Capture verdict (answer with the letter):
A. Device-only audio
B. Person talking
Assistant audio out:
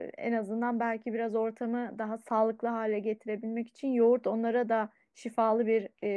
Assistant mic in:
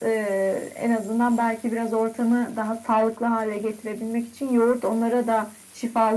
A